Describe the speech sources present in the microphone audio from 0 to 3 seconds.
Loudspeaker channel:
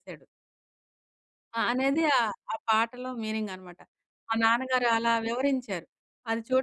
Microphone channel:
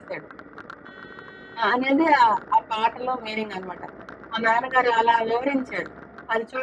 echo only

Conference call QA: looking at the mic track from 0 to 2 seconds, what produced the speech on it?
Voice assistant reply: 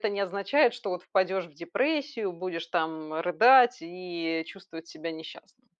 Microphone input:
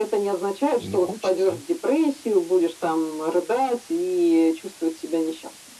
both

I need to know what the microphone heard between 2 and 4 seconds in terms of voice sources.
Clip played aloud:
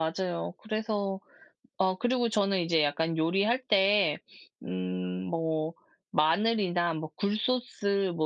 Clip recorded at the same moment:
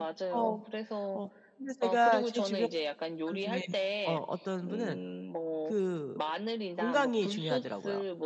both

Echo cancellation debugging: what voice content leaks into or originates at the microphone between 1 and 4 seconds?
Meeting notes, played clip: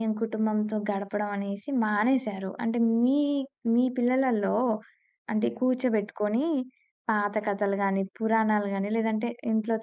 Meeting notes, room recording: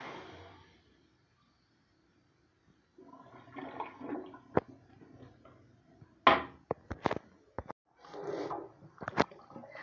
neither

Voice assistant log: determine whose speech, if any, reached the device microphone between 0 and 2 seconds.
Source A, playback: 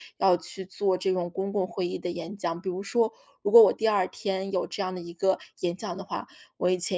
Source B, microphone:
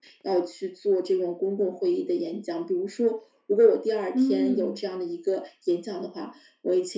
echo only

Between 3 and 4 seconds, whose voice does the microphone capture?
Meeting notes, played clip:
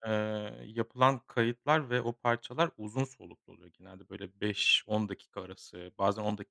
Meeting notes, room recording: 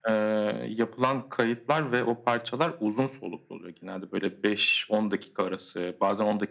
echo only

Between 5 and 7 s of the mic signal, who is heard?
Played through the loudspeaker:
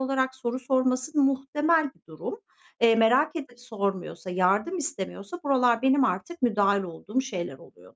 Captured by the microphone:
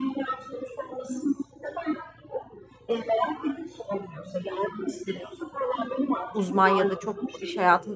both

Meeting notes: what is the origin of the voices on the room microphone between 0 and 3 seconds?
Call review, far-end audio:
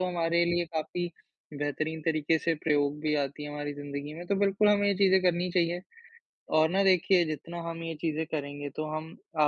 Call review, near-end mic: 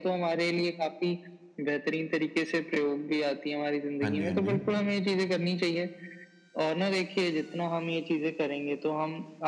echo only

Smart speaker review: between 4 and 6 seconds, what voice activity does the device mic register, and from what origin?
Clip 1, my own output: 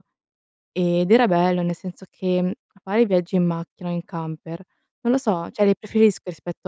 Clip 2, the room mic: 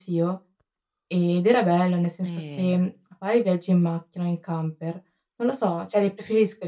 echo only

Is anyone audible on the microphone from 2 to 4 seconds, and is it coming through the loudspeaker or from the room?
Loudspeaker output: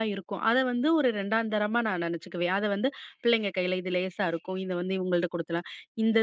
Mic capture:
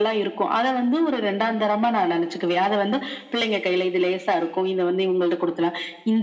echo only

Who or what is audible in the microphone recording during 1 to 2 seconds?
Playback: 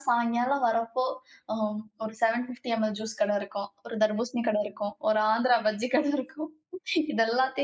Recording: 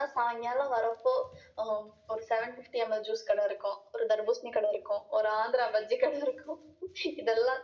echo only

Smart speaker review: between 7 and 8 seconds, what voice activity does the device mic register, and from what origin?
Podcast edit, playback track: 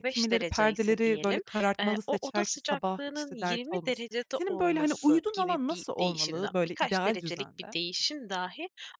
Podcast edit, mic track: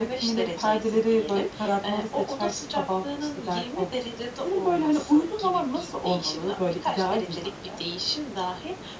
echo only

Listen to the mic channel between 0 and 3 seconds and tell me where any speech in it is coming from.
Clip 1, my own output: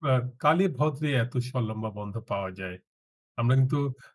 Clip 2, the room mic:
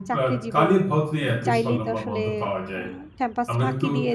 both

